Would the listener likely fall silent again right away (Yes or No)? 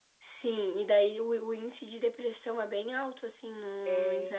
Yes